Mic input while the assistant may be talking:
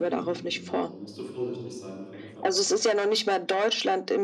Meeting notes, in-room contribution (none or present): present